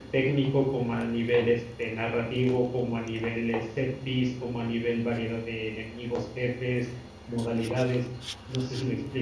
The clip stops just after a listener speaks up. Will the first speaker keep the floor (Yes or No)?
No